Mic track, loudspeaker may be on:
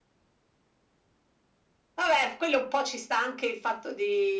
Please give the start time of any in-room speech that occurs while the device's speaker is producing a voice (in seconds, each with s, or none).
none